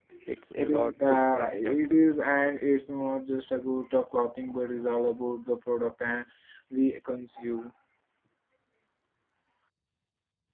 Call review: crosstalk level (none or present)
present